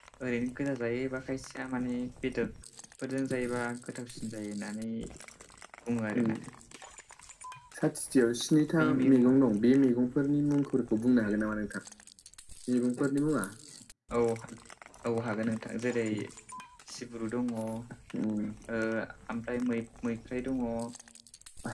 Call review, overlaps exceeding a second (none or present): none